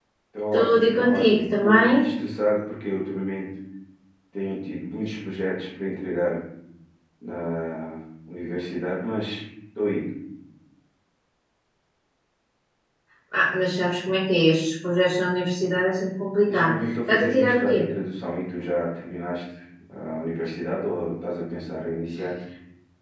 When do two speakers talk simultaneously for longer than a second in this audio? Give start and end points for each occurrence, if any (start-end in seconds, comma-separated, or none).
0.5-2.1, 16.5-17.8